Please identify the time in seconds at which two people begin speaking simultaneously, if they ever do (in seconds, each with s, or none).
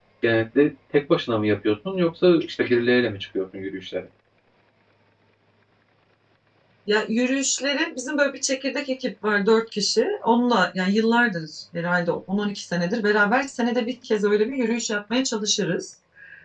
none